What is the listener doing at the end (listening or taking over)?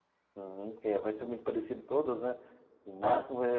listening